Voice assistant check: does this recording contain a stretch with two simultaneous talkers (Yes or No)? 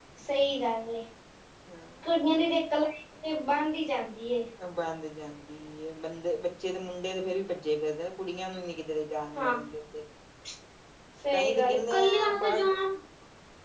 Yes